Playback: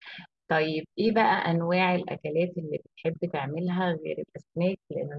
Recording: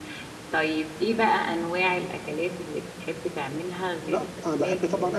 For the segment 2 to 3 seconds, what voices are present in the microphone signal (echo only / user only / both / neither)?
echo only